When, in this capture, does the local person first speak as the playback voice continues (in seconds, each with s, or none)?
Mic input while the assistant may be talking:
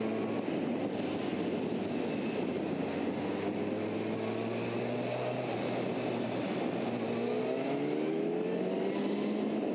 none